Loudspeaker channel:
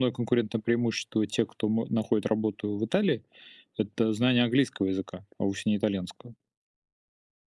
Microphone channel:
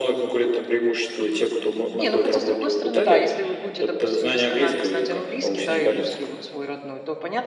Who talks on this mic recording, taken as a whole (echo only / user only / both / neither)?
both